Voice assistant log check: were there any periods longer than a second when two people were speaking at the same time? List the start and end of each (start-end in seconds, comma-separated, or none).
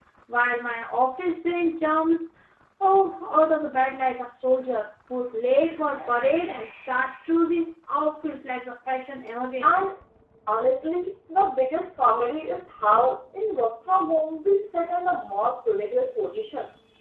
none